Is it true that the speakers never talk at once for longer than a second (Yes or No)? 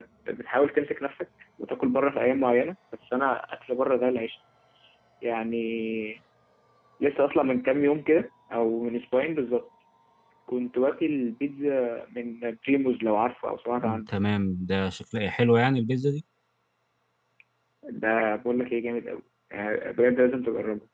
Yes